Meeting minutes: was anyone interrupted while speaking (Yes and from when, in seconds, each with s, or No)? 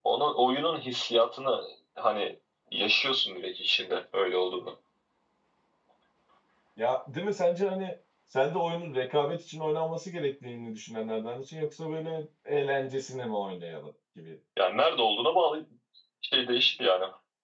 No